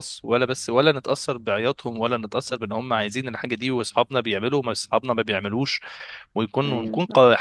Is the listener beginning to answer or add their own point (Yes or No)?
No